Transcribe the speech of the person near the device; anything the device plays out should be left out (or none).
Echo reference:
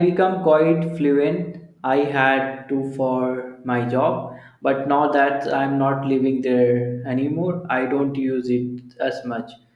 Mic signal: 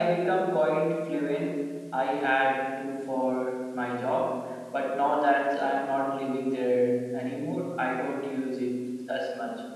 none